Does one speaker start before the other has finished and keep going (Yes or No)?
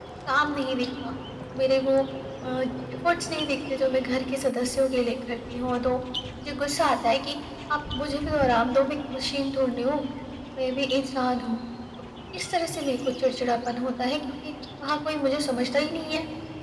No